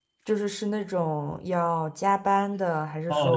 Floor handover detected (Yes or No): Yes